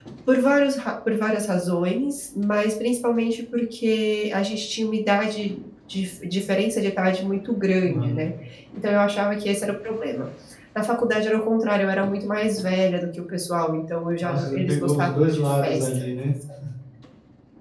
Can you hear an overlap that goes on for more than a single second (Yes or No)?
Yes